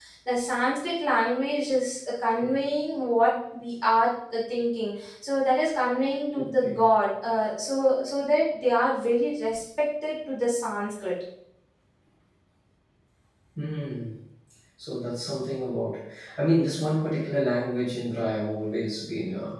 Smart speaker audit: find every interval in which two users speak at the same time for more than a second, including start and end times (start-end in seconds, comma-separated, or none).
none